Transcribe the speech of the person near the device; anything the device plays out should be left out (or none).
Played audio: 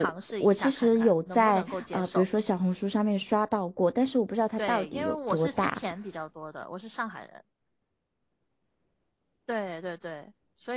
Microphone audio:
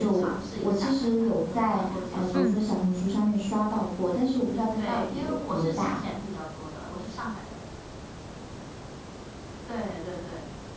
嗯，